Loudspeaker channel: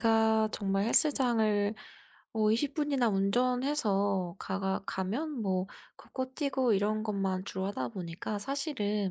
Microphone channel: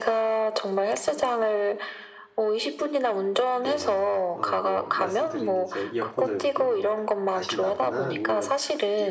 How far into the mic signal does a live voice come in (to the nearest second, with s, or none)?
4 s